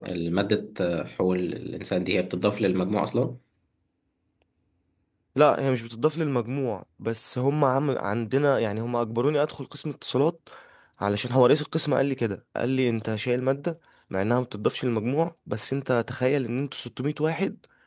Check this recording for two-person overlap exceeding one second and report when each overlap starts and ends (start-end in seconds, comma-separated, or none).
none